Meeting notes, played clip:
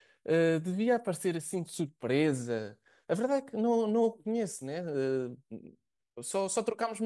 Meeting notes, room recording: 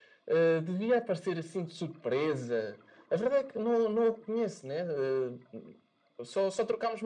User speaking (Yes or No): No